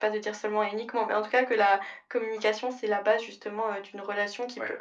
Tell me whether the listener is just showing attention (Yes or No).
Yes